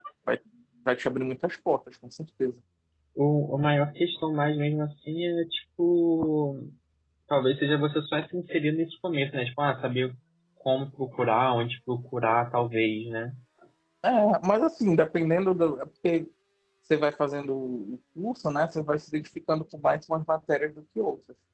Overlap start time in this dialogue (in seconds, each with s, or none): none